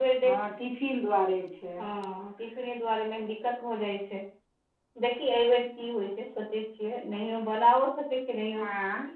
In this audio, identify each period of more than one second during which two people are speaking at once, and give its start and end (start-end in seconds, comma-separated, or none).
none